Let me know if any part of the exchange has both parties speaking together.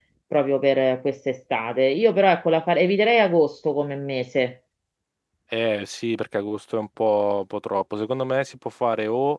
No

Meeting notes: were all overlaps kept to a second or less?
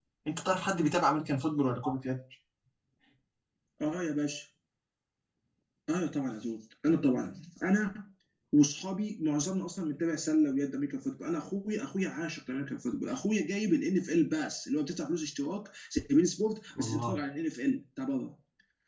Yes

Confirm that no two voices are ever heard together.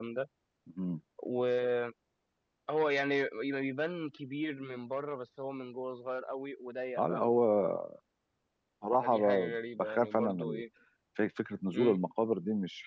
No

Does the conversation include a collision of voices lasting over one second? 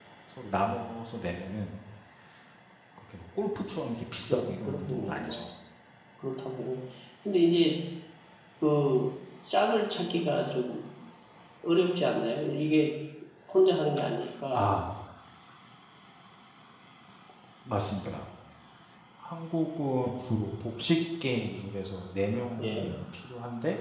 Yes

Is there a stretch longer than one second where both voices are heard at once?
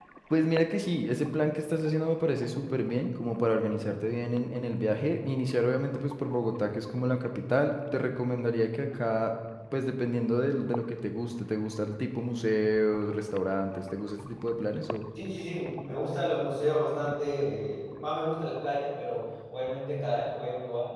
No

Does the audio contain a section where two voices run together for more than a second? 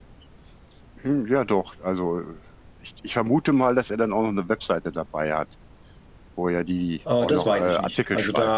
Yes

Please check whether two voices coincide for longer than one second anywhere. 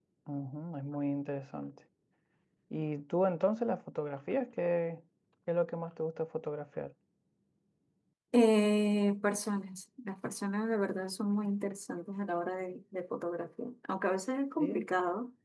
No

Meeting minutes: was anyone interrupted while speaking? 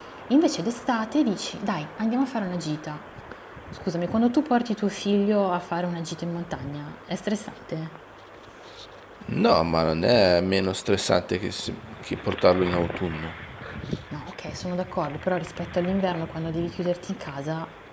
No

